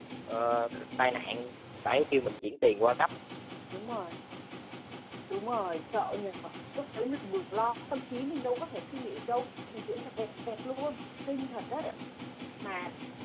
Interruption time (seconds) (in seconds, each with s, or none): none